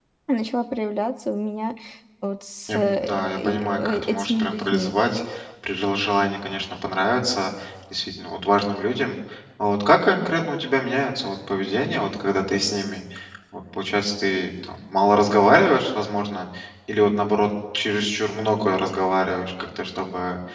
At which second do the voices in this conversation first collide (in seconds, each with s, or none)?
2.7 s